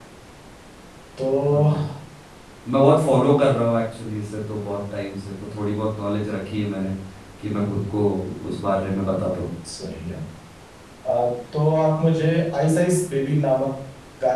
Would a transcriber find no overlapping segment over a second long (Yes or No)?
Yes